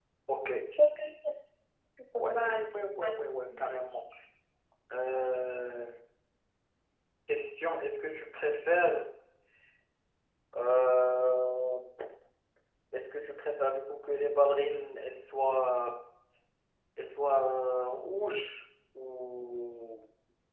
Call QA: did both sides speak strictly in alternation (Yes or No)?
No